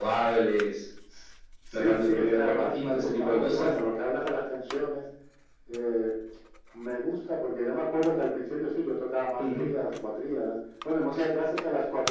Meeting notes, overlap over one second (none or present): present